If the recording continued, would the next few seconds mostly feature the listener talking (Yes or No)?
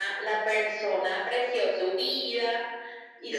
No